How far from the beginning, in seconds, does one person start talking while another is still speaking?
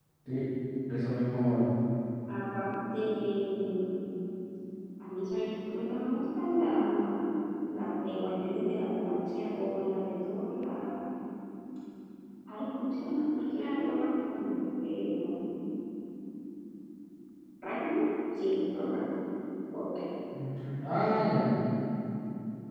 none

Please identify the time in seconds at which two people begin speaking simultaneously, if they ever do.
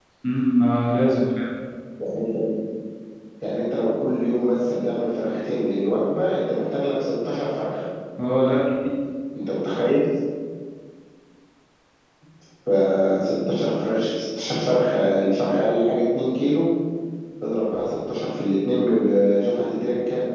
none

